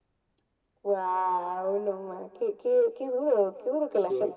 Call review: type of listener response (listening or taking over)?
taking over